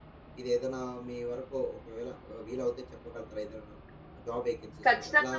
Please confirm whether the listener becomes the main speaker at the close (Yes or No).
Yes